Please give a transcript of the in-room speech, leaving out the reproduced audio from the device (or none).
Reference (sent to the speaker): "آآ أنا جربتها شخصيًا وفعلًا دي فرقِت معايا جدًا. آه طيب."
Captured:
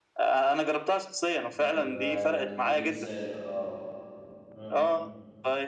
ما ال لو تديني مثال آه. إمم.